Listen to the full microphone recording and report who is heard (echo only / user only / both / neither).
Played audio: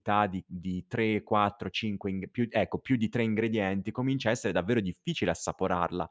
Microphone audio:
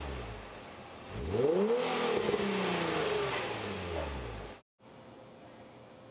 neither